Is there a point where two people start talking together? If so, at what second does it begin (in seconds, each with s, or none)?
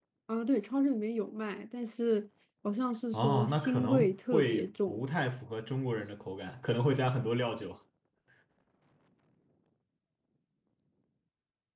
3.1 s